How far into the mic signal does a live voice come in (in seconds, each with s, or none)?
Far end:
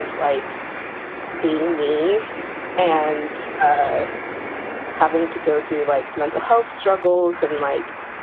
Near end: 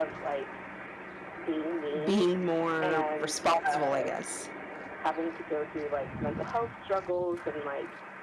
2.0 s